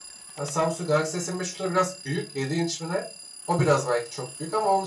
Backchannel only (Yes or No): No